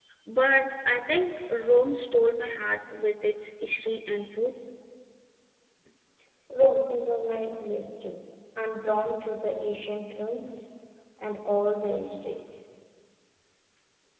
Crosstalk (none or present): none